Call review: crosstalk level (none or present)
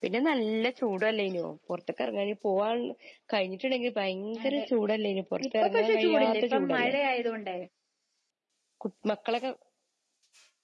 present